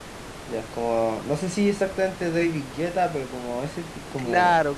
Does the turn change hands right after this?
Yes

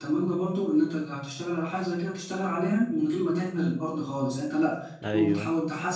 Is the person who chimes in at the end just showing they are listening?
Yes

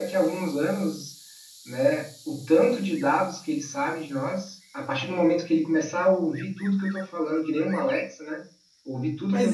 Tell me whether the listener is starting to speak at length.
Yes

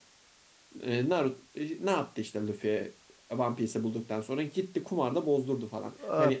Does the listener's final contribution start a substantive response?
Yes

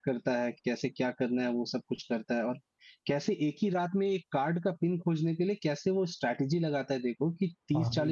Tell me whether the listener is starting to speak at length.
No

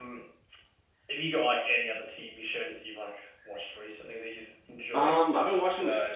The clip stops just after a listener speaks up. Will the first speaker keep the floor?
No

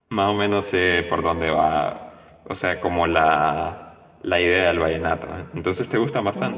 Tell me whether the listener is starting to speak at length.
Yes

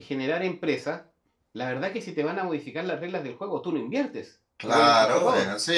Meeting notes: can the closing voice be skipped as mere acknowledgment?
No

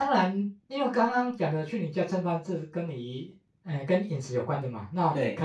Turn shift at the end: No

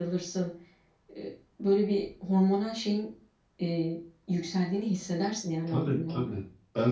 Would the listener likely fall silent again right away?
No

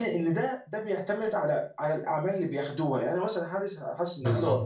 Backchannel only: Yes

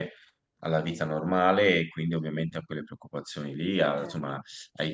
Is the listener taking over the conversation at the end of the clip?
No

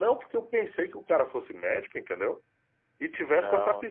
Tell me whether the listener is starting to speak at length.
No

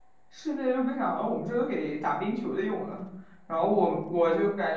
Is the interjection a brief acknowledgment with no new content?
Yes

